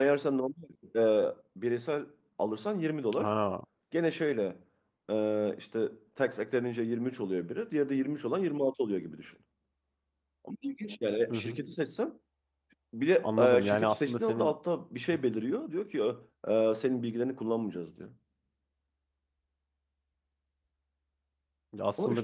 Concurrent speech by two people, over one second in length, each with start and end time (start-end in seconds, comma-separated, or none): 13.2-14.6